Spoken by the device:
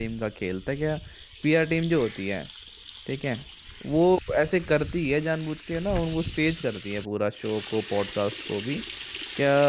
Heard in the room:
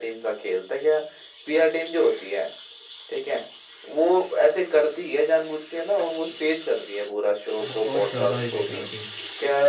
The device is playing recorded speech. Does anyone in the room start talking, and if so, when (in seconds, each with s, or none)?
7.7 s